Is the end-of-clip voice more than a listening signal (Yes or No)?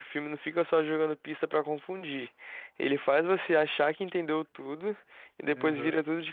No